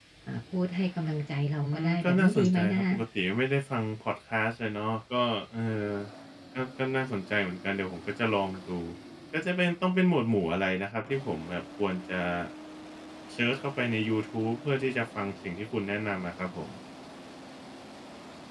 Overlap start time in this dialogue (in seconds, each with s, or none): 1.6 s